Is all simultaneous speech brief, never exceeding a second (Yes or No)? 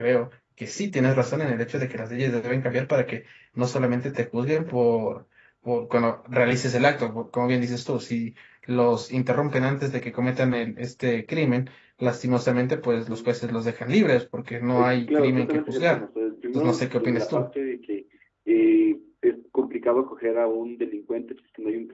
No